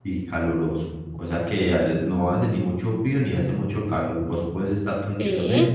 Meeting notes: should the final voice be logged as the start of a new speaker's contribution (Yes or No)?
No